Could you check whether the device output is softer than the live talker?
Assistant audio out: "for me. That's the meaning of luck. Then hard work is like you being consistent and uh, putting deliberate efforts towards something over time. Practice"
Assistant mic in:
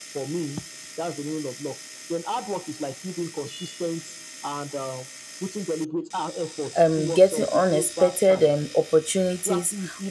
Yes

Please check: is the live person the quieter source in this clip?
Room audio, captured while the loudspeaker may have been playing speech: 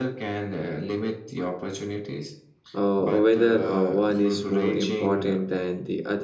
No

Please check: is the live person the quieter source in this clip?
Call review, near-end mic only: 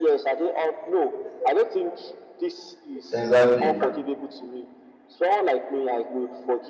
No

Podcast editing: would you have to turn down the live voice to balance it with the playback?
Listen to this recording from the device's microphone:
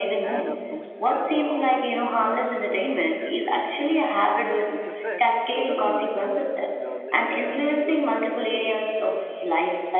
No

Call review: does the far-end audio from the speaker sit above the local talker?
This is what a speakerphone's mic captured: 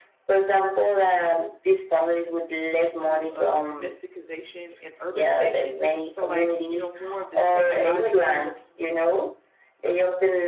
Yes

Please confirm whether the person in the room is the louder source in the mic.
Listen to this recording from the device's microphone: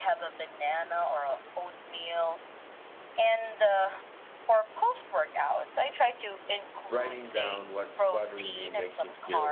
No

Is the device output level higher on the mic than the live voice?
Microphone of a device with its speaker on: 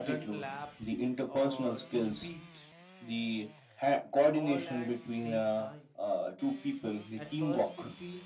Yes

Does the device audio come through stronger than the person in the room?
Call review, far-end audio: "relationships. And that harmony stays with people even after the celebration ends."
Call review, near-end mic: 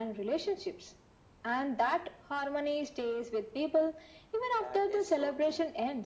Yes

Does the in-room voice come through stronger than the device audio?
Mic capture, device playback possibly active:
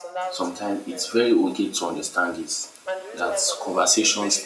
Yes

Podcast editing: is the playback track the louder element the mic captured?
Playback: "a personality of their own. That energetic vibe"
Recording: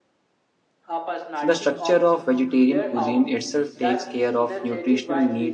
No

